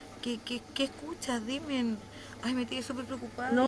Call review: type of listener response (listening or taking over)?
taking over